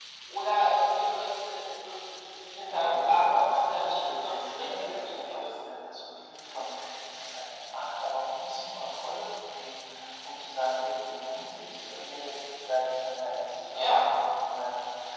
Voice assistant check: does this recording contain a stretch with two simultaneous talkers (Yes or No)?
Yes